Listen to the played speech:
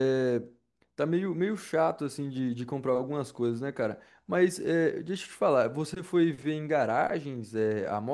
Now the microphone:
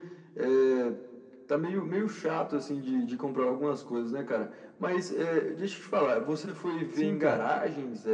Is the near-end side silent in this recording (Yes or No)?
No